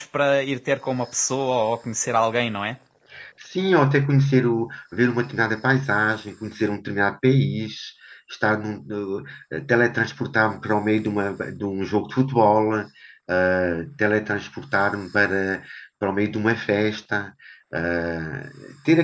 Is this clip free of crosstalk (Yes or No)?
Yes